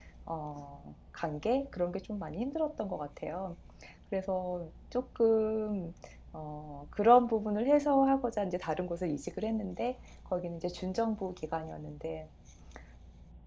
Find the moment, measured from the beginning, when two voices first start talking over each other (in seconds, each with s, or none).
none